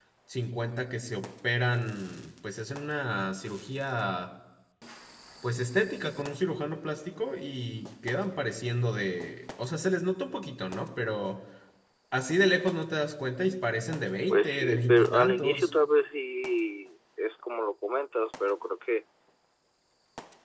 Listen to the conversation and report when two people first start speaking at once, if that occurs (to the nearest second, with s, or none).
14 s